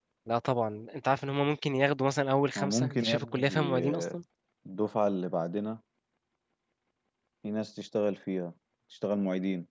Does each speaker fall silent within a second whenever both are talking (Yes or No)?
No